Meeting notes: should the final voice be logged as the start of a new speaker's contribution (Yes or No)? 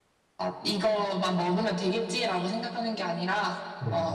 No